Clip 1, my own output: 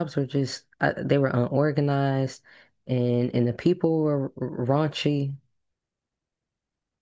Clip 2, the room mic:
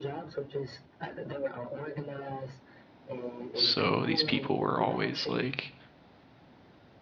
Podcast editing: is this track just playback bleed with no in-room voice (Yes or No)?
No